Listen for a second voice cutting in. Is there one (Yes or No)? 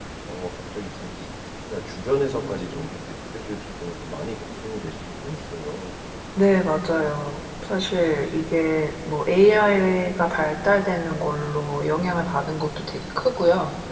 No